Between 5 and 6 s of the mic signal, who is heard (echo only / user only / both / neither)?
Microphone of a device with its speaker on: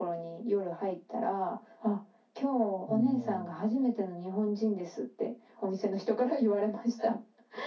echo only